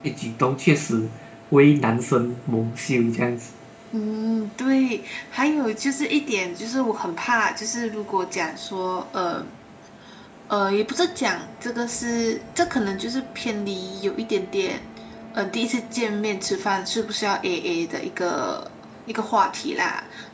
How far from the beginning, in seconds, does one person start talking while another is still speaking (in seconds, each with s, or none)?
none